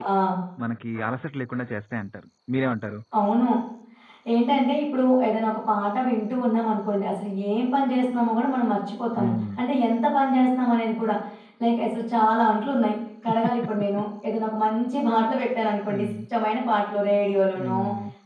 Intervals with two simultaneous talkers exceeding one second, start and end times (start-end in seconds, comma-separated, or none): none